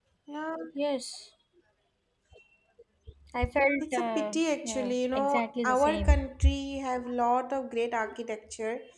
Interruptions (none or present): present